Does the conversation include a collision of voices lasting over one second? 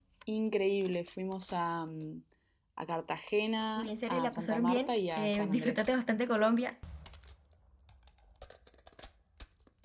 Yes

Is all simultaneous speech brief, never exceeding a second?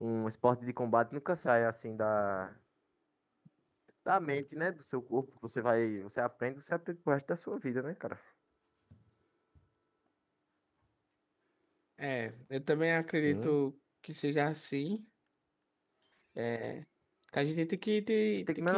Yes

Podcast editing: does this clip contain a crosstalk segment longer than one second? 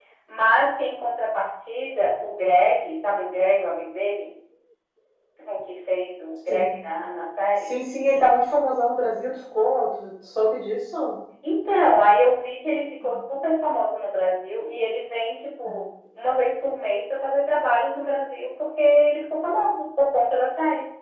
No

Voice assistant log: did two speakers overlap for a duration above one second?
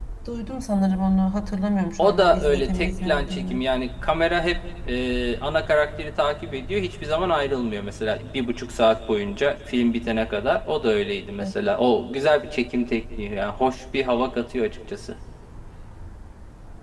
Yes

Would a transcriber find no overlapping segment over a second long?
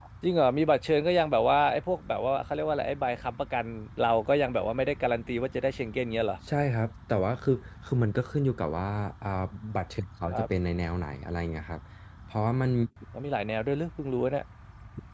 Yes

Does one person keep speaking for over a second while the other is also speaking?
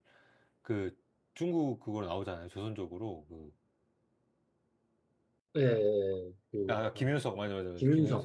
No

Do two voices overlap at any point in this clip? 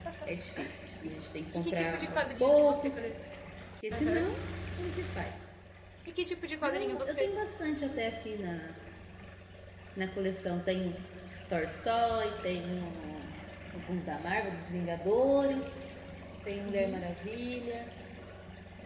Yes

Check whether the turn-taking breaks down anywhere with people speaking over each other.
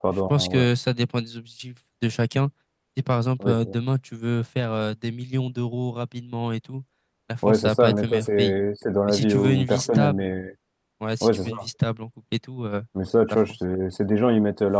Yes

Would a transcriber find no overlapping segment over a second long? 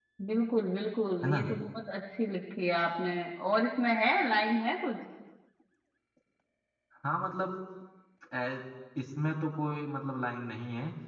Yes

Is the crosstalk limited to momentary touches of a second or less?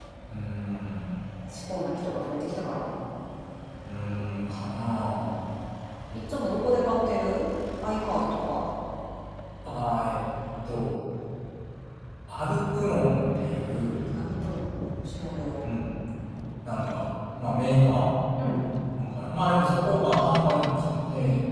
Yes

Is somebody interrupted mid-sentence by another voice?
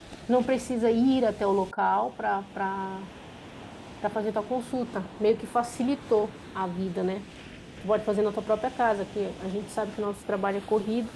No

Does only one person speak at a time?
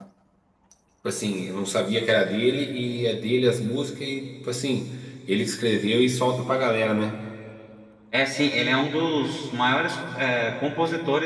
Yes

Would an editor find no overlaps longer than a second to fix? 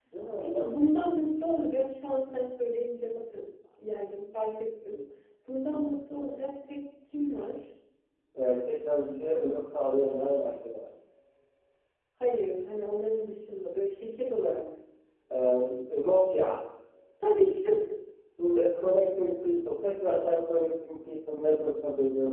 Yes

